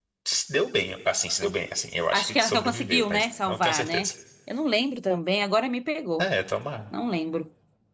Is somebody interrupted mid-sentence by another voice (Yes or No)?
Yes